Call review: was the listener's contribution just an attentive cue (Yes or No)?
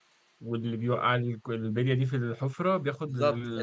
No